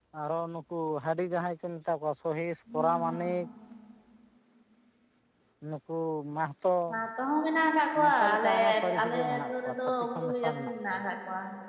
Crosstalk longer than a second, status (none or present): present